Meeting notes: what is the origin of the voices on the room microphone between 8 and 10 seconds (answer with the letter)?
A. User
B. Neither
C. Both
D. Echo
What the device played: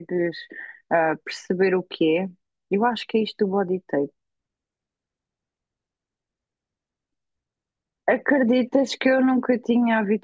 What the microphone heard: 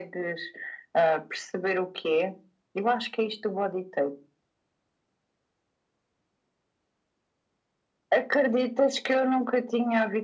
D